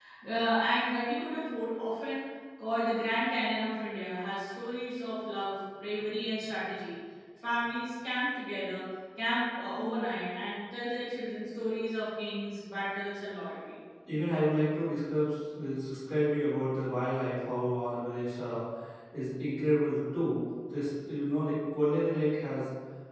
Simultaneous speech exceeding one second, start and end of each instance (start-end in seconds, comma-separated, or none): none